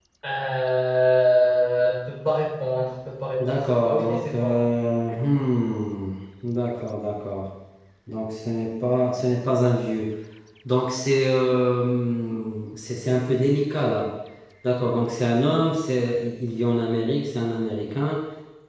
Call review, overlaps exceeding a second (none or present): present